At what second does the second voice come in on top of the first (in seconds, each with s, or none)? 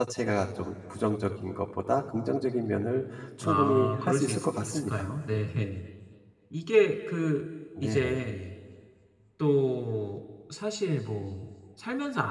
3.4 s